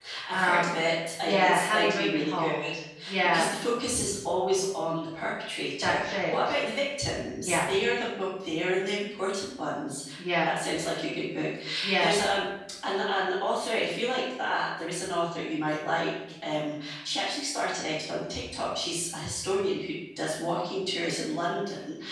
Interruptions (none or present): present